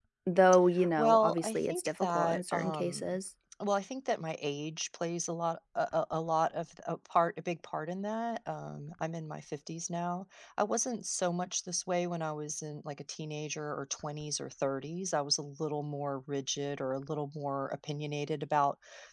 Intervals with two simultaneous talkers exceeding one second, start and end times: 1.0-3.2

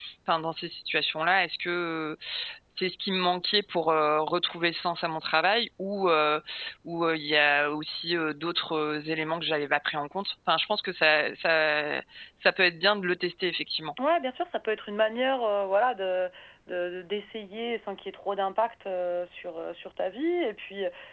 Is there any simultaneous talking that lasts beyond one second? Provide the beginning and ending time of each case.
none

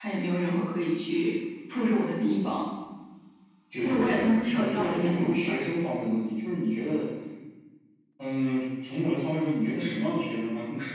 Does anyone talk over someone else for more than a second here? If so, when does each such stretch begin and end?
3.8-5.5

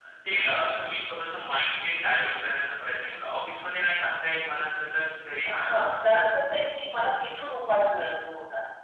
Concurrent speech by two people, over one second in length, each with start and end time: none

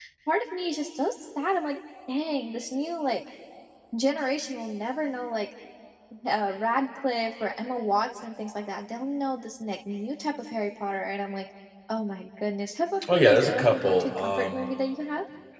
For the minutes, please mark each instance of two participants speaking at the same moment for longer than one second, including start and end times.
13.1-14.6

